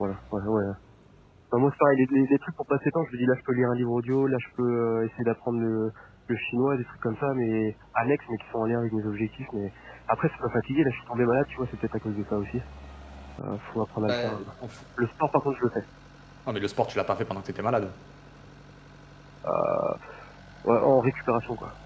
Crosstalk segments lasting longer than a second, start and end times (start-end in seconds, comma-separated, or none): none